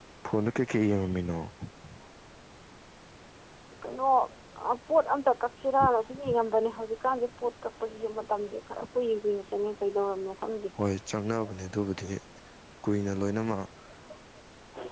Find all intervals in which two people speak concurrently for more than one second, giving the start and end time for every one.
none

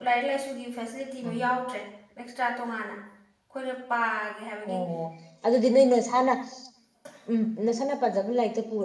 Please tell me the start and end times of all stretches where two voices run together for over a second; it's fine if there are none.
none

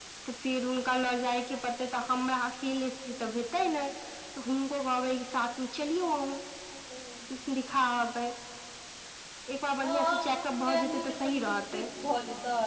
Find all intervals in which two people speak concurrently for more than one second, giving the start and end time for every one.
9.8-11.8

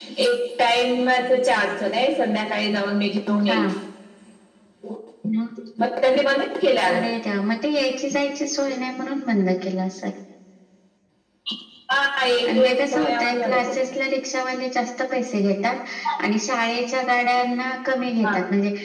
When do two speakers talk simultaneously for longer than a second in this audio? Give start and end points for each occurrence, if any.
12.5-13.7

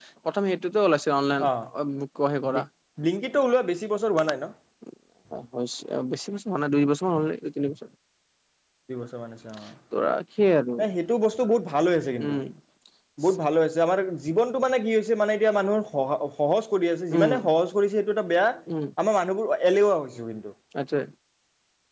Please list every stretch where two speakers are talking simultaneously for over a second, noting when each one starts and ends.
none

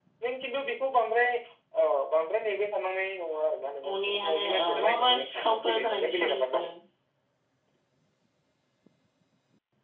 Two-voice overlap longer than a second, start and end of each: 4.0-6.6

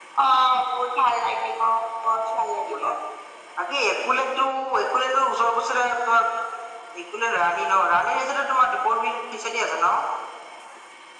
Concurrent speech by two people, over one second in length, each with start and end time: none

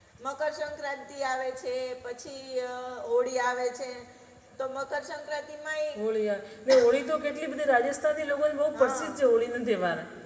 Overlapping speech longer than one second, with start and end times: none

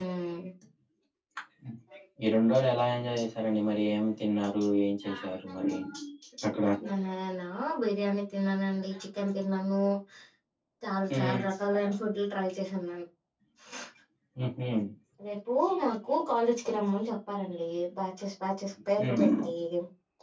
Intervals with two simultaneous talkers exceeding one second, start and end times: none

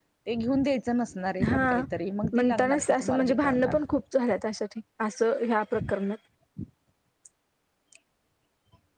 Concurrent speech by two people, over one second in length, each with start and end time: 2.4-3.9

